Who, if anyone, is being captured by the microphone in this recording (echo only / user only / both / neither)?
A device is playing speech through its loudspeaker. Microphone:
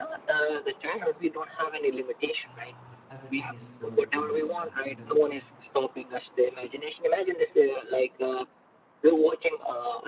both